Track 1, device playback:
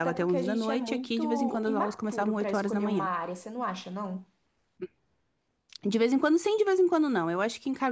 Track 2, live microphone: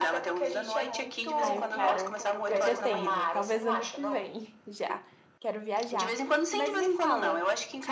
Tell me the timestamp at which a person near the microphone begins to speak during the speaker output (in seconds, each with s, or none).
1.4 s